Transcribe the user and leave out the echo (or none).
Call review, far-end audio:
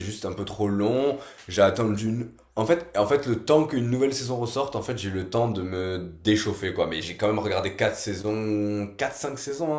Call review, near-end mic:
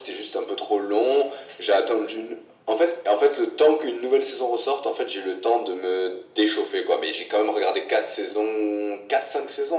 none